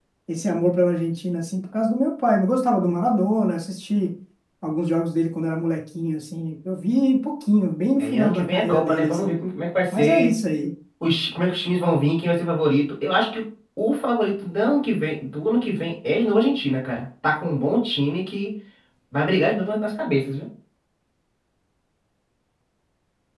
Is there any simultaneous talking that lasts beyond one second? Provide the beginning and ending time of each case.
8.0-9.3

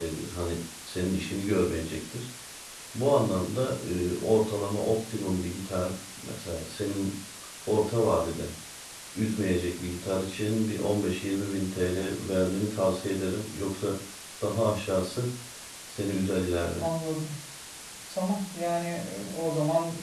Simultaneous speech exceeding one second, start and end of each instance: none

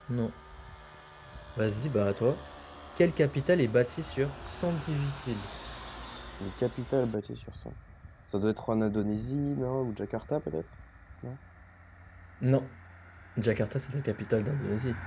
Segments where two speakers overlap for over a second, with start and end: none

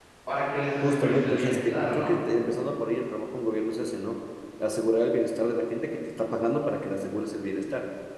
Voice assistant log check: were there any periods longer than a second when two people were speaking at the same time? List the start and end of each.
0.8-2.1

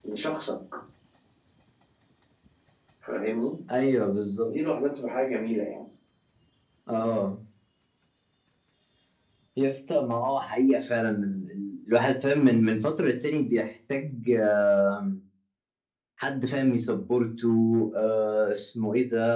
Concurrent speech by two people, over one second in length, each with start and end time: none

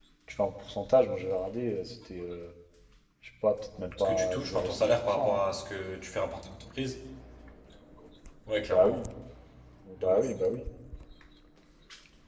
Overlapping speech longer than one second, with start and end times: 4.0-5.4

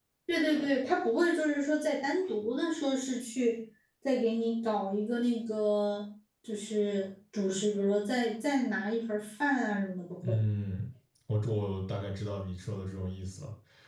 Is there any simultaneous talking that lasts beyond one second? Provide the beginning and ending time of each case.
none

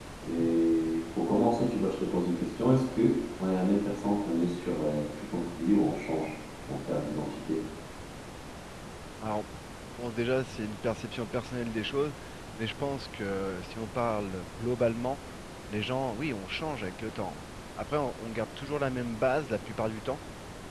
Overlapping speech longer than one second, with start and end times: none

